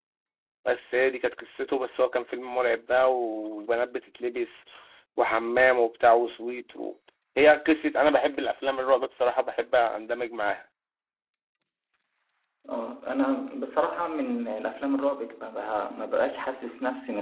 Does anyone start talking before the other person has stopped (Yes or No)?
No